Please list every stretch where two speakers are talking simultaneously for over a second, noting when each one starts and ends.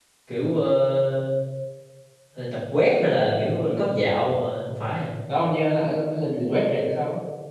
none

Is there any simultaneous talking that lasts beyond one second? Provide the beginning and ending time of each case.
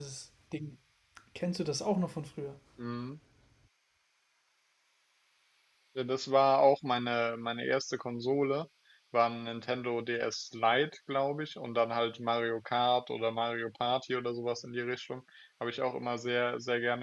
none

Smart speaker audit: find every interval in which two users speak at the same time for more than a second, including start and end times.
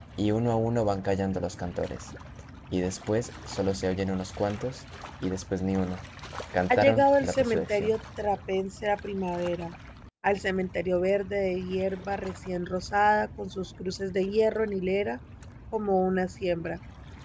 6.7-8.0

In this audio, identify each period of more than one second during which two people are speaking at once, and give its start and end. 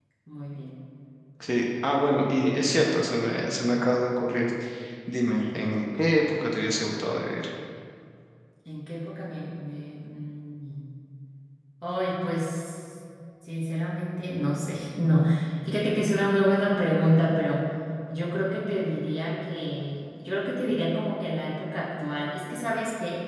none

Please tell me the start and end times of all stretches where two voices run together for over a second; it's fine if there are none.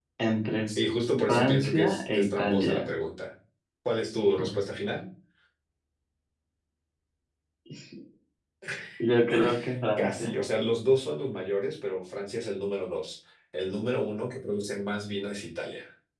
1.3-2.8

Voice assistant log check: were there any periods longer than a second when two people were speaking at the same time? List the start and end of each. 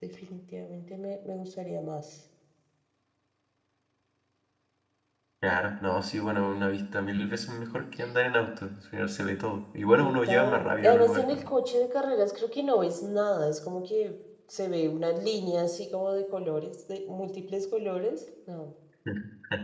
10.0-11.5

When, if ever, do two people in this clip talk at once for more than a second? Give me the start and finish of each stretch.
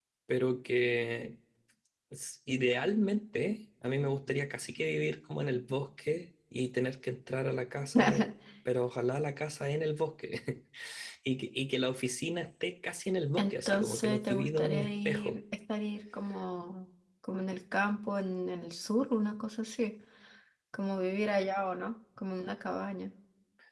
13.4-15.4

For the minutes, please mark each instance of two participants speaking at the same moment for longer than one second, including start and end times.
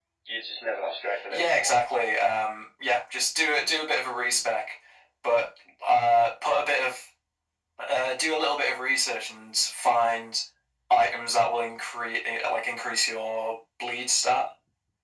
none

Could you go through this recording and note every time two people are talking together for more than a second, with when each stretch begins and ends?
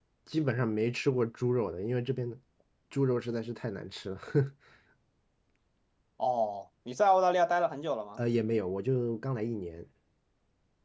none

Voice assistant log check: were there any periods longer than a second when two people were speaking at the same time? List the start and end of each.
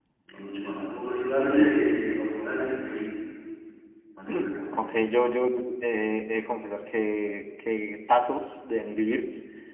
none

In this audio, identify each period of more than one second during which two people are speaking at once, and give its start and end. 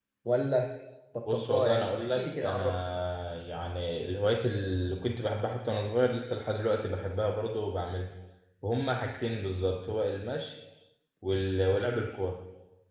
1.3-2.8

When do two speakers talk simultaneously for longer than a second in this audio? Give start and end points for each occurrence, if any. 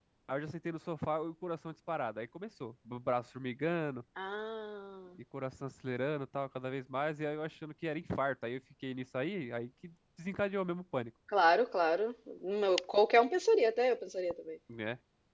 none

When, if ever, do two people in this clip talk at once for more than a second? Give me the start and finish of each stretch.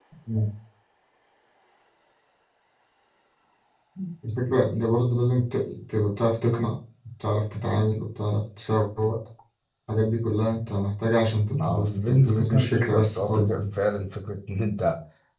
11.5-13.6

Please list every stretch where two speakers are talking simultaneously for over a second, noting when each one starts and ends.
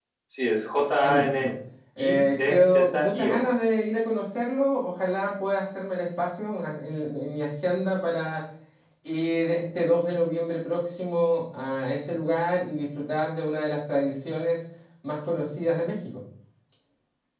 2.0-3.4

